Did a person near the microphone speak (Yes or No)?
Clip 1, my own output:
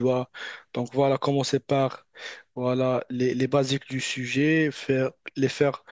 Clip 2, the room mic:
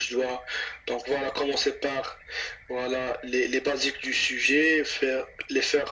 No